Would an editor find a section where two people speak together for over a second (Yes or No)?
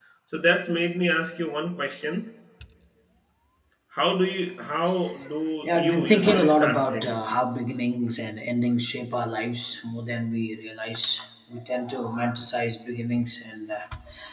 Yes